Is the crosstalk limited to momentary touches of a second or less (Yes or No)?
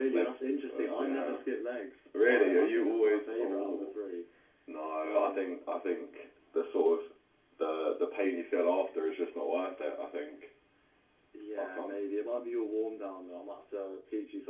No